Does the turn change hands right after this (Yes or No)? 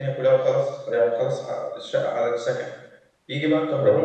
No